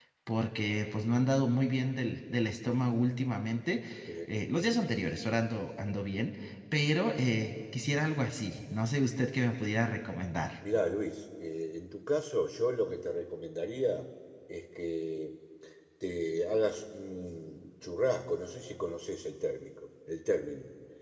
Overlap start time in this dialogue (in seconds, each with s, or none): none